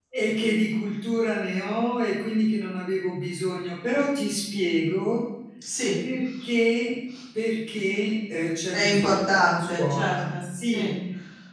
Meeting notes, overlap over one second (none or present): present